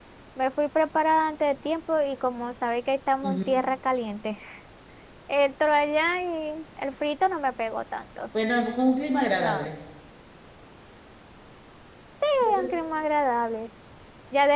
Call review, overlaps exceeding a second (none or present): none